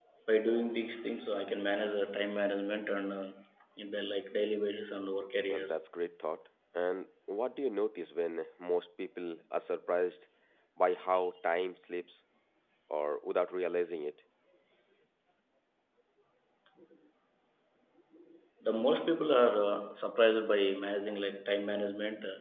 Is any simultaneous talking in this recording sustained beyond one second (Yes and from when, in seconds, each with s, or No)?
No